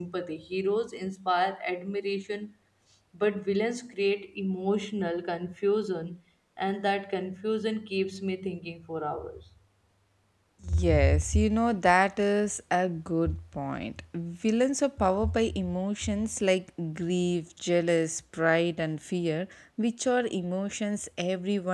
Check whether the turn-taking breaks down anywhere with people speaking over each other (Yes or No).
No